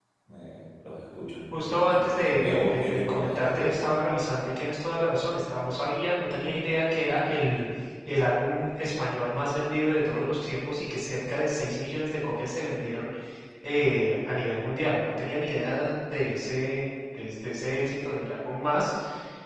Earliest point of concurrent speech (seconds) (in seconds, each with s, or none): 1.5 s